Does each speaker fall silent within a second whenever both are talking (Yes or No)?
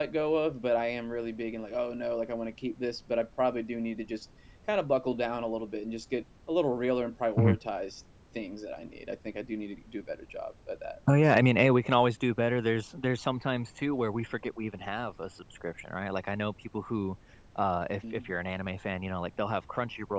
Yes